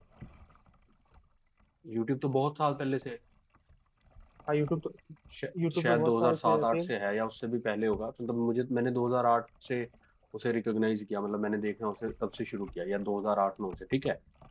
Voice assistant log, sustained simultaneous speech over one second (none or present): present